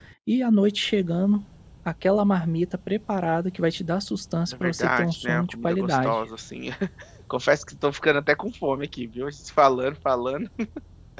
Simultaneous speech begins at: 4.5 s

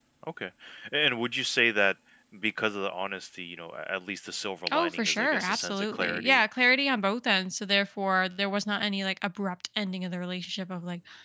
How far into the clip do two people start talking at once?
4.7 s

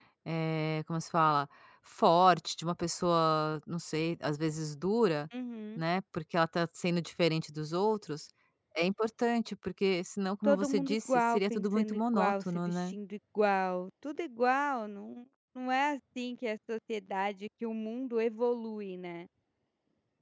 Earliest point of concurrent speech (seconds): 10.4 s

